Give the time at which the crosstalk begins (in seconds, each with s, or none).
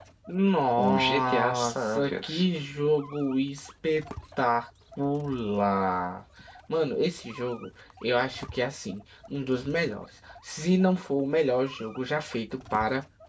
0.8 s